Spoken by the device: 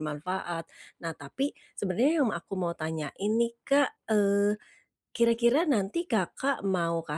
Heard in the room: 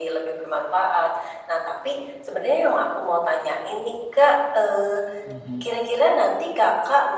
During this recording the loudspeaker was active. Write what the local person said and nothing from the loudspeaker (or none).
Mhm.